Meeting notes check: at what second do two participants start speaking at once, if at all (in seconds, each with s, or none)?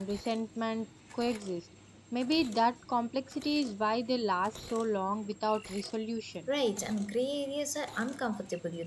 none